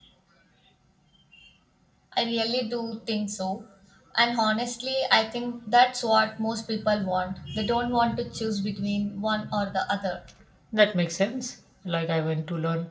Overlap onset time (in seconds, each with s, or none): none